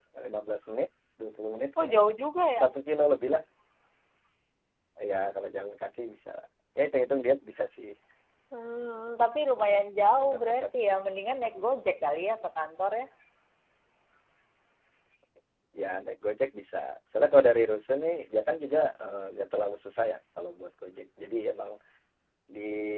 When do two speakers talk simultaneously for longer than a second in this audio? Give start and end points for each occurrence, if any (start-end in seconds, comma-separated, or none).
none